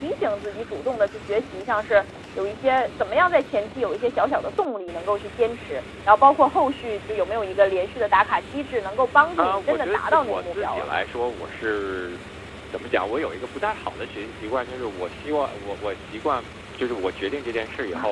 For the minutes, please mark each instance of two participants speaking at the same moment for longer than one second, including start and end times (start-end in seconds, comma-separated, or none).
9.4-10.8